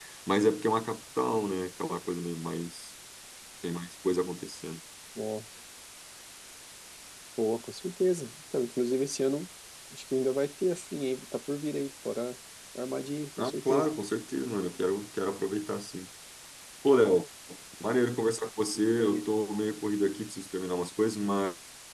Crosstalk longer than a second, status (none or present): none